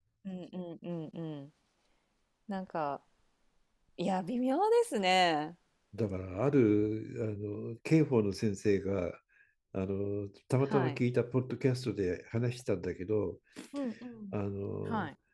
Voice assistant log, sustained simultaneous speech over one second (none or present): none